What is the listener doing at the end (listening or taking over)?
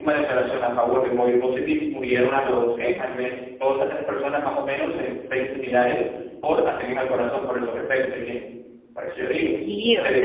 taking over